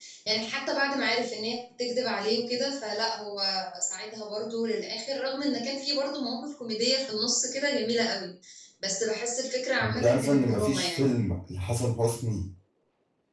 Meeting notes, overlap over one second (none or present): present